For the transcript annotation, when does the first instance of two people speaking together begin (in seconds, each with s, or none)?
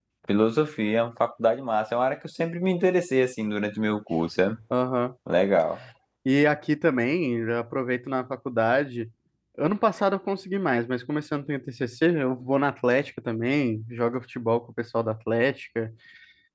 none